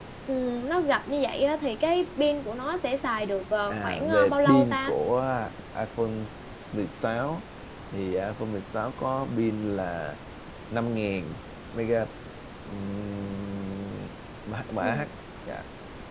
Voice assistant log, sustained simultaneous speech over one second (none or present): present